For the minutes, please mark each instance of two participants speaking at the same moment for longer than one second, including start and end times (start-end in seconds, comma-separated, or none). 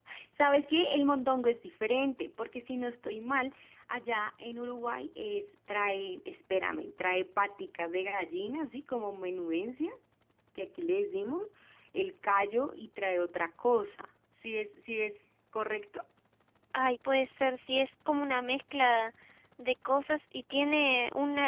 none